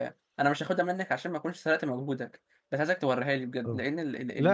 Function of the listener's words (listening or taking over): taking over